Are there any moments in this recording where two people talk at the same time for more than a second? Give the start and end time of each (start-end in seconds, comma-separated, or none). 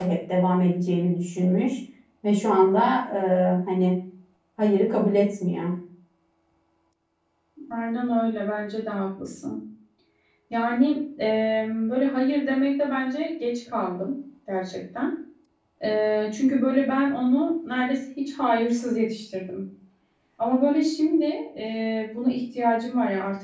none